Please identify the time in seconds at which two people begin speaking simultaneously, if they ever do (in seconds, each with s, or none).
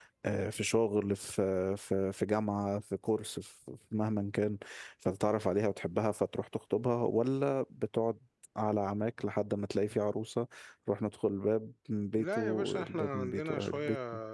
12.2 s